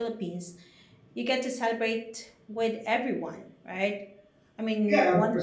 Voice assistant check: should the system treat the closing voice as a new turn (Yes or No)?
Yes